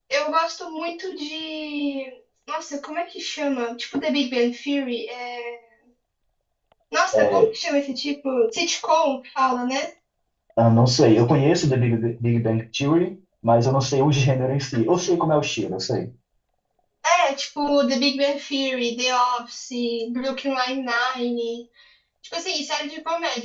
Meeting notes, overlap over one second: none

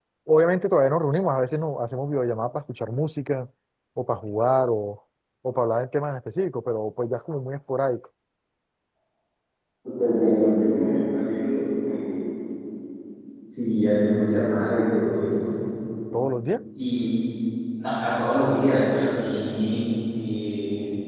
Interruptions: none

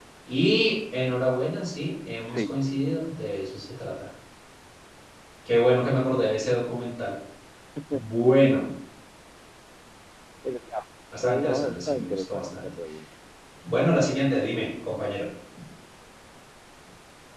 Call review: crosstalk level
present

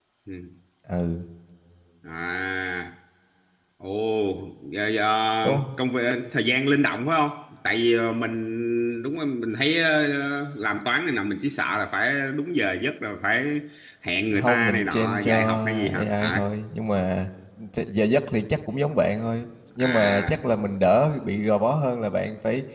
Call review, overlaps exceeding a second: present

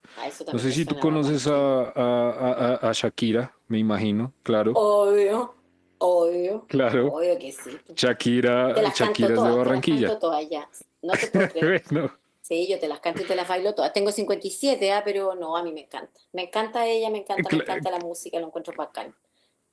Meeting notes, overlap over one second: present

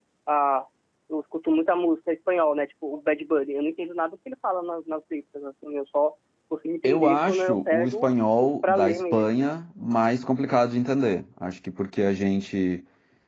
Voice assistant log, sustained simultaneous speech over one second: present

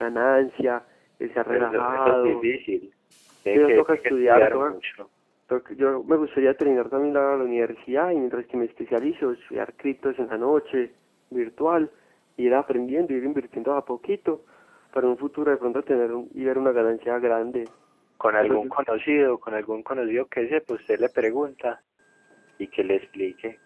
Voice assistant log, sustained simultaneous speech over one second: present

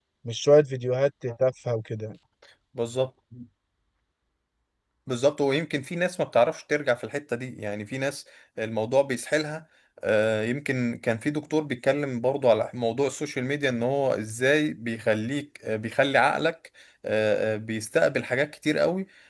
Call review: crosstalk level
none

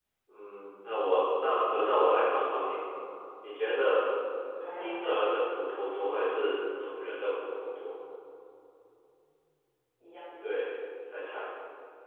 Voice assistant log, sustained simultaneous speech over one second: none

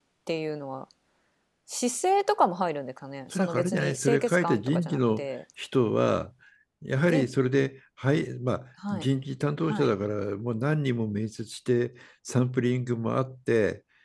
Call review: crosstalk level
present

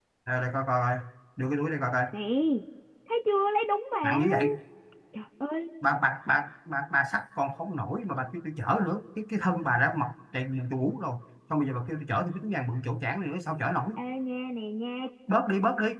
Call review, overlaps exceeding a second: none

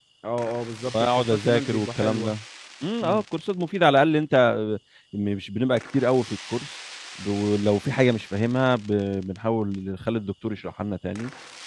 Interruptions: present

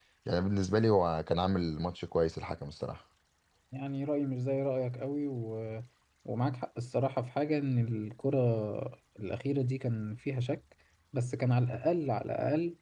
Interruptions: none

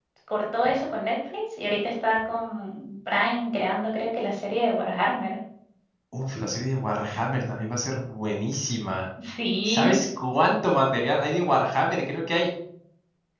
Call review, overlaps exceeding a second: none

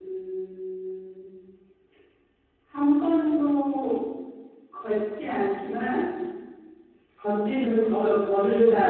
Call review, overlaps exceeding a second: none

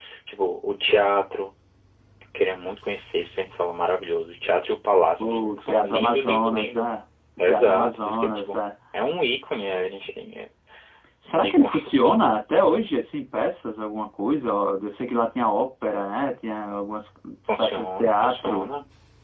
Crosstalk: present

